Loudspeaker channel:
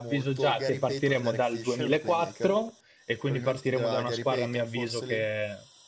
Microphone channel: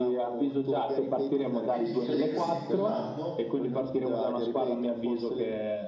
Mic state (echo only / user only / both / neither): both